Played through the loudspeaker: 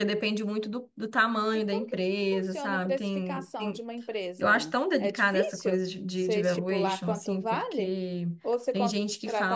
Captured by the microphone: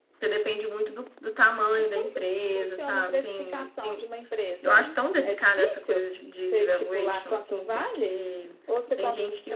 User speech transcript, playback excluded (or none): none